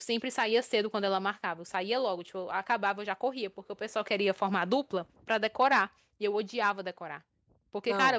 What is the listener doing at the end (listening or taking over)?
listening